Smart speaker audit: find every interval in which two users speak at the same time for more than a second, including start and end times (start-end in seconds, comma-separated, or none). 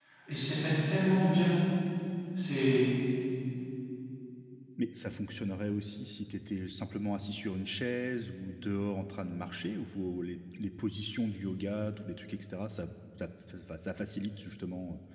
none